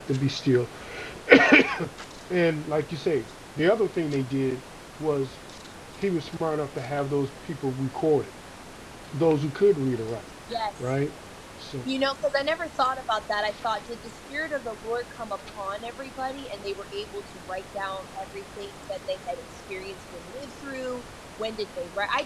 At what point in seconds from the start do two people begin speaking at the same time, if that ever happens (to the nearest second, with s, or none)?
none